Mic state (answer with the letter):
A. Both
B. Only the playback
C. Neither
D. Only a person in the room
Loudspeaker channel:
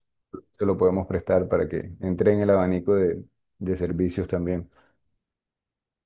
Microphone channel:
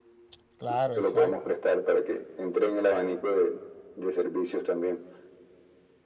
A